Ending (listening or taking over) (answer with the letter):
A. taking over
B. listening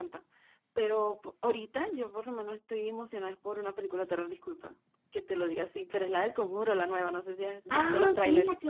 A